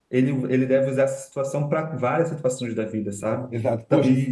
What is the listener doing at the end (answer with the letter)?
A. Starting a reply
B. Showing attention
A